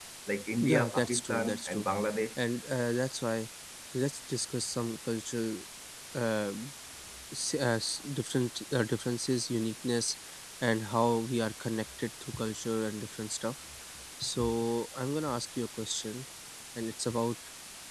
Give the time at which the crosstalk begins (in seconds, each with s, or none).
0.6 s